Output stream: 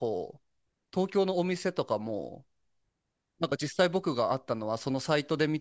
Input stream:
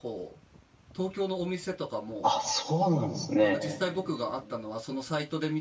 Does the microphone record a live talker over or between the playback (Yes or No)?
Yes